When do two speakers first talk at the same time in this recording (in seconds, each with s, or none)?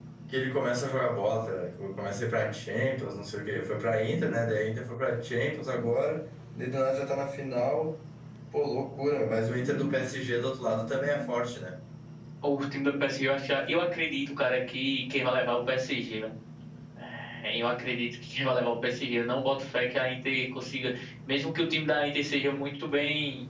none